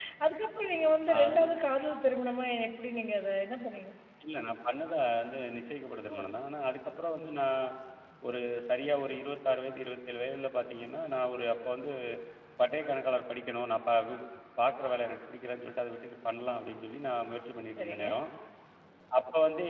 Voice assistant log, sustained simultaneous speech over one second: none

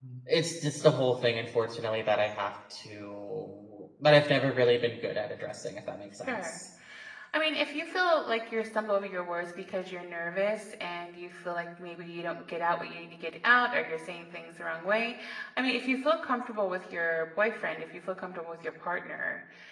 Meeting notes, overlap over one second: none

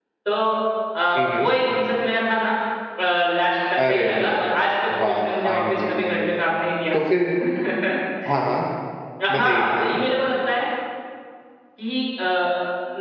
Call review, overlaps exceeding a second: present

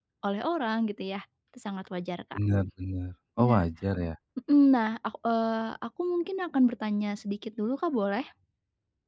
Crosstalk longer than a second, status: none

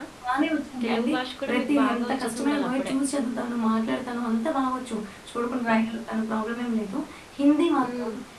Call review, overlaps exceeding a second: present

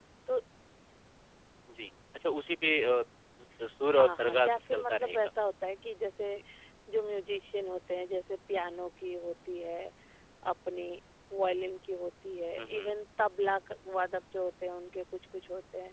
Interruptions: present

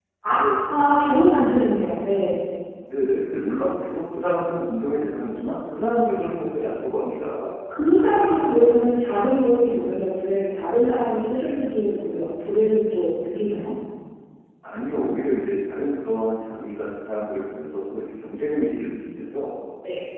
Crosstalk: none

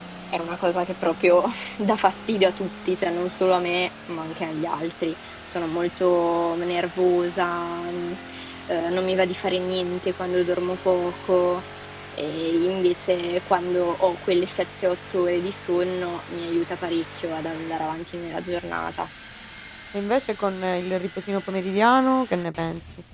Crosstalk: none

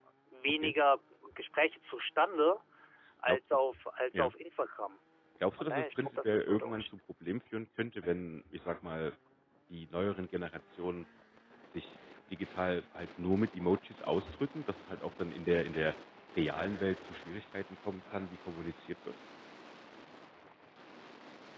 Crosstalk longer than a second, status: present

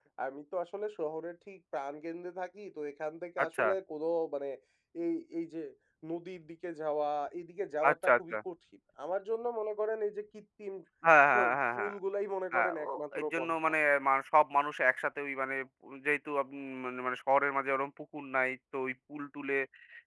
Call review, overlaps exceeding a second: present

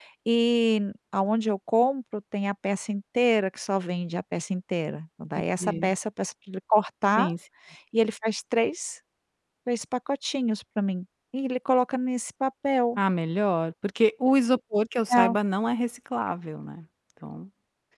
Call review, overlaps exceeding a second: none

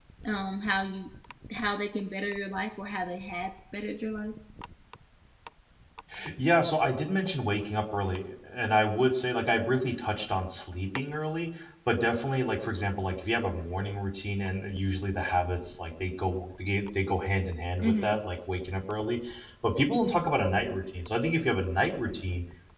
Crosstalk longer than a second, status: none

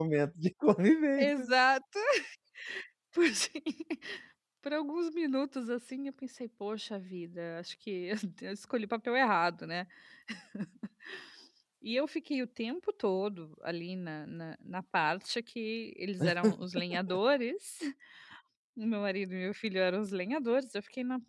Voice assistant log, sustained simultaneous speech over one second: none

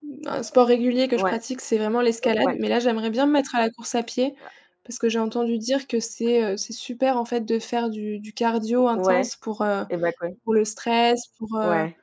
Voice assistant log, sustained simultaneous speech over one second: none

